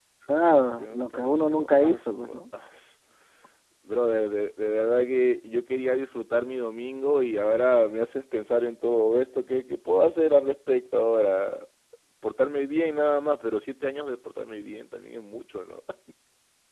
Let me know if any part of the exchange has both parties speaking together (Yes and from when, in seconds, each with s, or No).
Yes, from 0.8 s